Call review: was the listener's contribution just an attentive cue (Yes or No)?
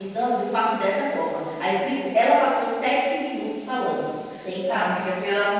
No